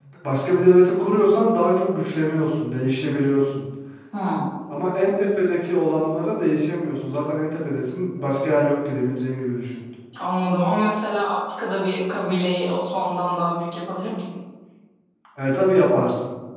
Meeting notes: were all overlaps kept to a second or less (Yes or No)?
Yes